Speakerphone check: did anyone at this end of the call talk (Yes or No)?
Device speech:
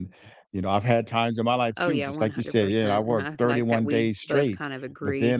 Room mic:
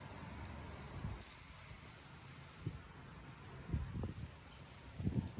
No